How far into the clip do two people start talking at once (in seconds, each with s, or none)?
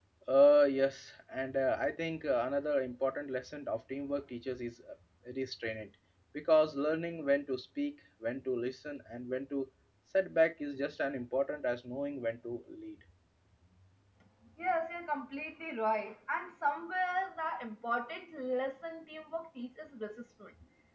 none